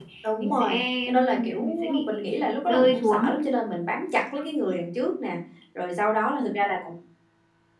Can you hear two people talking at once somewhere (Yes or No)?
Yes